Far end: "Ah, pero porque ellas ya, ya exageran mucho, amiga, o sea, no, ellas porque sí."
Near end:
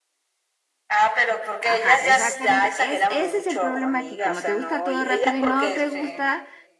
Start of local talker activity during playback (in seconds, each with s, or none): 1.6 s